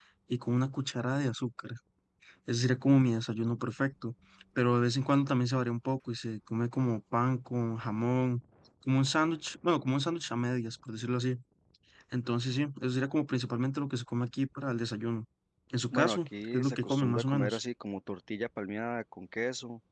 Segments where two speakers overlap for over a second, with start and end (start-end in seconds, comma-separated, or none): 15.9-17.6